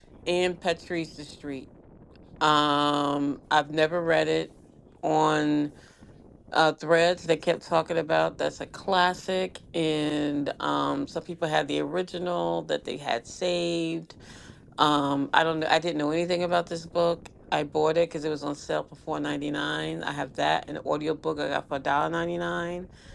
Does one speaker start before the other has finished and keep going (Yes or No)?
No